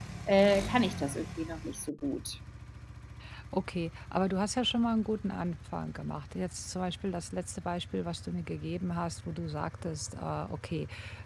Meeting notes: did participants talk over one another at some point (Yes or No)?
No